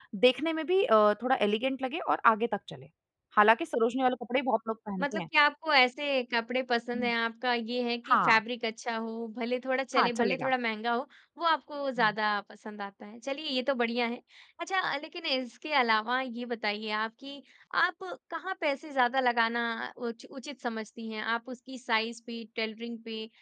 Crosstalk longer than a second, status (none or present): none